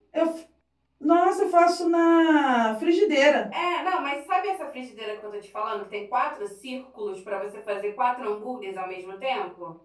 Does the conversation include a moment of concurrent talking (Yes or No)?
No